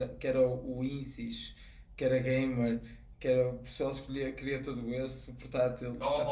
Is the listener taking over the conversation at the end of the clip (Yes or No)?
Yes